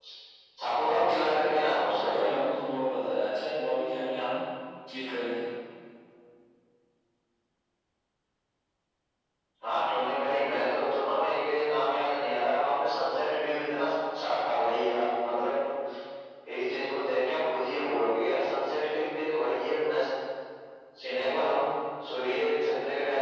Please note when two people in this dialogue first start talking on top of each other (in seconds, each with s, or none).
0.8 s